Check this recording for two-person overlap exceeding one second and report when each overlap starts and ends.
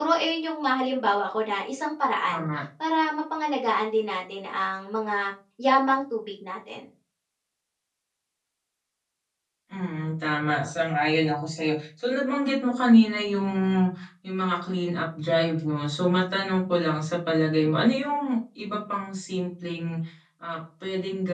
none

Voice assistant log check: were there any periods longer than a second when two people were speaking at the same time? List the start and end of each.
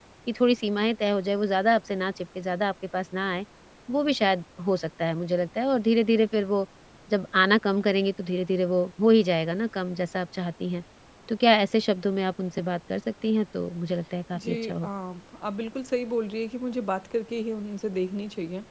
none

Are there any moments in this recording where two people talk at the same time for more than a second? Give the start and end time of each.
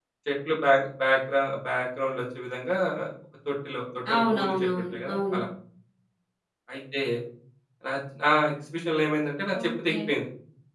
4.1-5.4

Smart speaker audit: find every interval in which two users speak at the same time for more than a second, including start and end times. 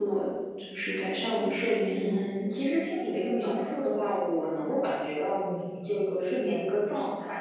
none

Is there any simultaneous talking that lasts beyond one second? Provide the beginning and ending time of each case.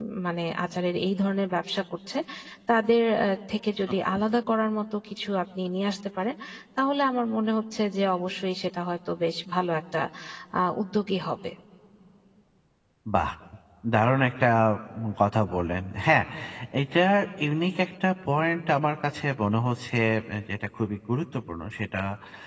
none

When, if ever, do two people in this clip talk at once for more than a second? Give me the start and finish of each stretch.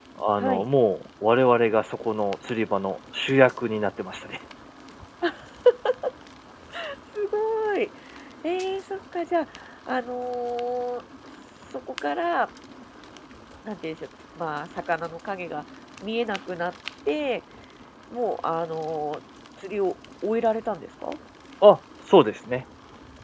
none

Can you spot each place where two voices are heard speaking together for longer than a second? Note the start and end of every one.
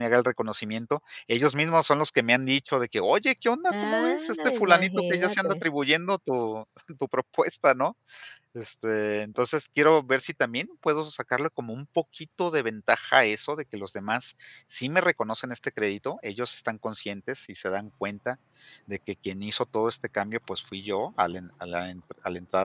3.8-5.5

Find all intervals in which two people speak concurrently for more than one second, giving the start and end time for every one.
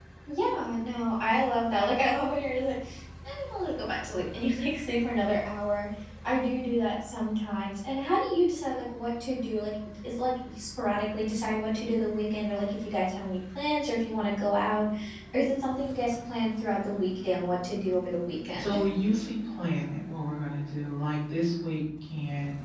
none

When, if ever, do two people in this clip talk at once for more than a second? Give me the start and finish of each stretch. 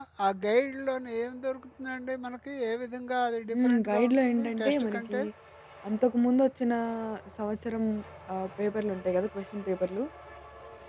3.5-5.2

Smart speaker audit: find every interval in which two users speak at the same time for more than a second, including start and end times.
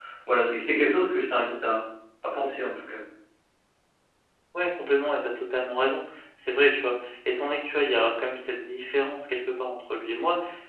none

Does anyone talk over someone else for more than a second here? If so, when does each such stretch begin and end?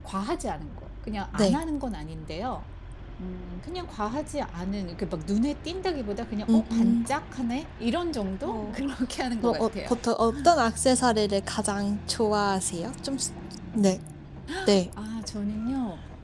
none

